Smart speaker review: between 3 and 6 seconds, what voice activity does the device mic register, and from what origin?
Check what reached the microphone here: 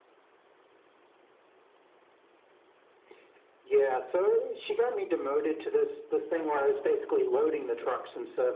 echo only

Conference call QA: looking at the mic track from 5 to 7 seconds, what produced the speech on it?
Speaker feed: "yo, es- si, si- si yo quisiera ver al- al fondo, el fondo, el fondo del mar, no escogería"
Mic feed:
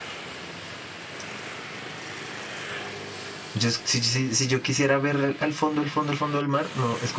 echo only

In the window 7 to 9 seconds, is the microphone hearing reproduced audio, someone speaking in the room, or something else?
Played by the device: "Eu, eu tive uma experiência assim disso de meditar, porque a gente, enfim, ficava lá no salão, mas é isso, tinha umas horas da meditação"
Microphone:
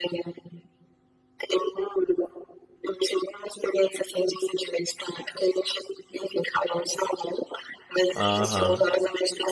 both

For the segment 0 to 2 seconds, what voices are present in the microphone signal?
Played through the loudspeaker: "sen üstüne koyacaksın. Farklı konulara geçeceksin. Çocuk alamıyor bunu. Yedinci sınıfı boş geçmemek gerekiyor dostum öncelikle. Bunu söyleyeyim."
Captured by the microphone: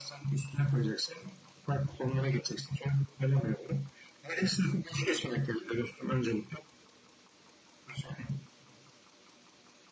echo only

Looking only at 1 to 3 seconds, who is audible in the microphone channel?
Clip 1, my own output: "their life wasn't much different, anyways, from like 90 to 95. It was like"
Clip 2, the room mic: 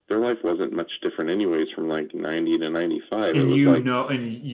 echo only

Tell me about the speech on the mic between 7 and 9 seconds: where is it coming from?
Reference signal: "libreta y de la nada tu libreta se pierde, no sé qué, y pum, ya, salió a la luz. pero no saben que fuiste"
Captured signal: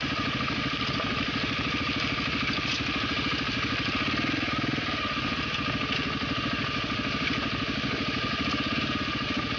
neither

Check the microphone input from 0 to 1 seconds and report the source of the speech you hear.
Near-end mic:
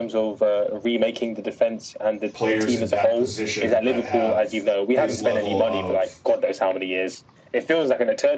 echo only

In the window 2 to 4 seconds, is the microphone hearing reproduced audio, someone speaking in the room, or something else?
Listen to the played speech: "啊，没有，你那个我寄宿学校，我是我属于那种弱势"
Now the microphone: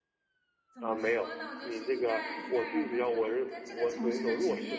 both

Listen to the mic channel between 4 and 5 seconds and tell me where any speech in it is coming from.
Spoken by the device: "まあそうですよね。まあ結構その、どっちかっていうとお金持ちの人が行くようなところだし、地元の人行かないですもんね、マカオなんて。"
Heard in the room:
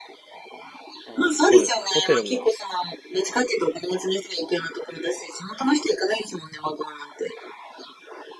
echo only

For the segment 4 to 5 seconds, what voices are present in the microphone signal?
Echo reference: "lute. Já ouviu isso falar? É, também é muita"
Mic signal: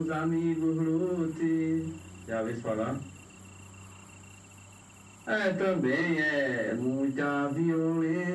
neither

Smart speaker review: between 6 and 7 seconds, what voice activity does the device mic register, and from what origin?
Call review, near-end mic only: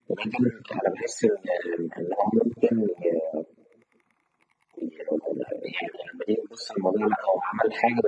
echo only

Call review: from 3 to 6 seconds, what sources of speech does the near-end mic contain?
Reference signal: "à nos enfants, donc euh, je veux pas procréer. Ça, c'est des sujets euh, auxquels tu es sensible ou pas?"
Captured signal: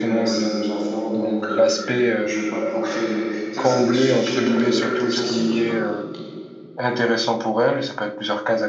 both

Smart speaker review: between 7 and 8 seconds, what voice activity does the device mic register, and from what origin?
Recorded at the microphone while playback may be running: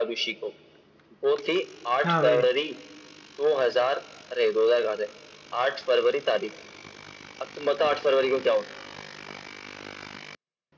echo only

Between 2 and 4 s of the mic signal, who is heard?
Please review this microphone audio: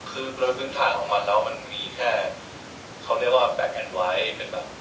echo only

